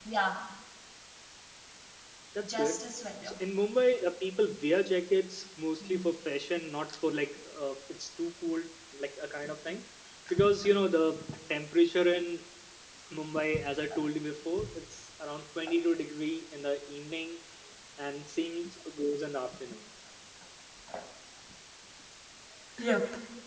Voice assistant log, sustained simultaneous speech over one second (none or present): none